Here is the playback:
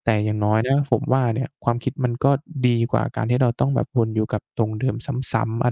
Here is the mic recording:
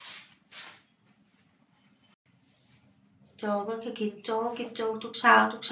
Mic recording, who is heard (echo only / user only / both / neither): user only